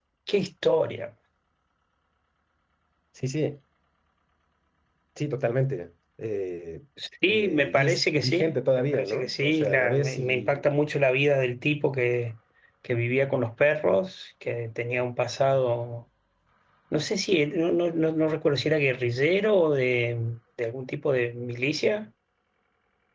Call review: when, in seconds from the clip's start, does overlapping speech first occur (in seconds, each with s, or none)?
7.3 s